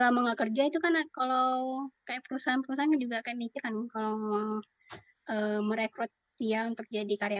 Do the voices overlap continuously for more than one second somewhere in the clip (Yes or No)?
No